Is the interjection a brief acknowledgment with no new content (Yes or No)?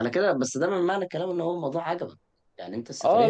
No